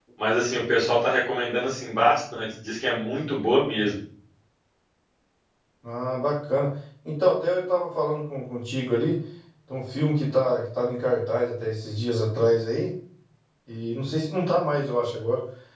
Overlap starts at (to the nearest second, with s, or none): none